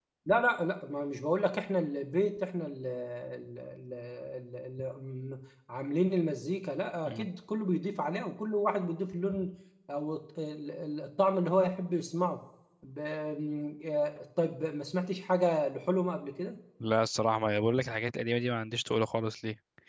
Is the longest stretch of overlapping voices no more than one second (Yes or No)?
Yes